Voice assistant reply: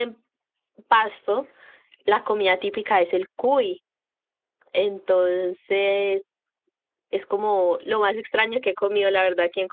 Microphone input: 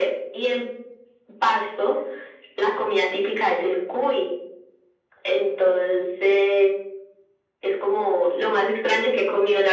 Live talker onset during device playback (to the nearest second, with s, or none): none